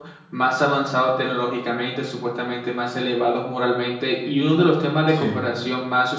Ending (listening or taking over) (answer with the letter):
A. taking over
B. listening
B